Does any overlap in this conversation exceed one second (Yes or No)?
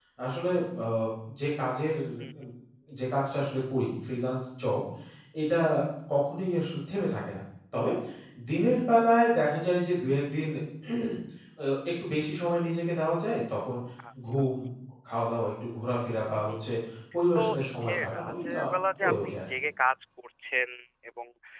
Yes